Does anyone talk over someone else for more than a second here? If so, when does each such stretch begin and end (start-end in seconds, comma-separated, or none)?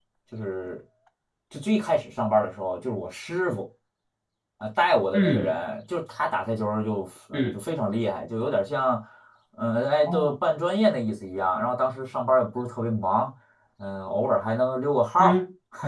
none